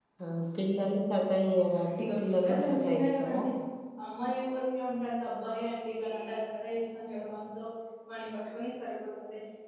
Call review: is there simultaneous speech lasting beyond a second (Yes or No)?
Yes